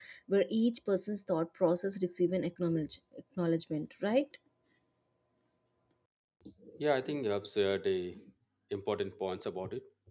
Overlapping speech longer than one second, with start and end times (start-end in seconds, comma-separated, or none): none